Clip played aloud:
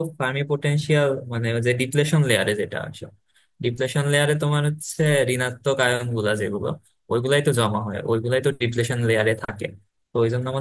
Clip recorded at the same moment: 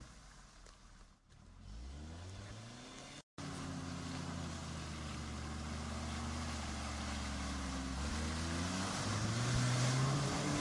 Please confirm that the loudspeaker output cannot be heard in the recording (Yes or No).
Yes